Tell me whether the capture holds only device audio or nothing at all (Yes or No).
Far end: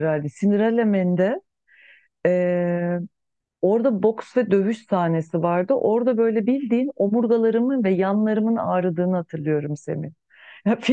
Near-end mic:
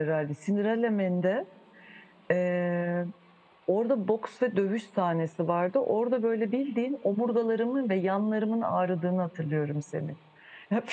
Yes